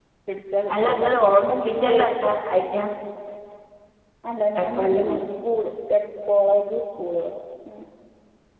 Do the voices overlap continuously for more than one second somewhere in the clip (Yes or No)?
Yes